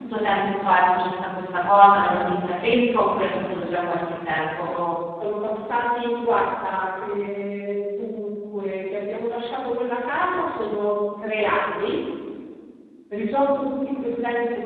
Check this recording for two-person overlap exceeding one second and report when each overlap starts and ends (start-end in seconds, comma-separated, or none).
none